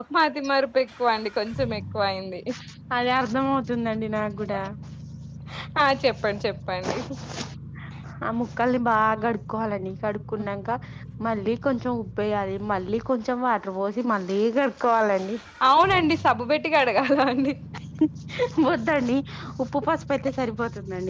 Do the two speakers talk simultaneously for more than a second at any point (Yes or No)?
No